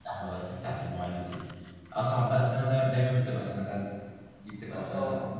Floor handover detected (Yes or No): No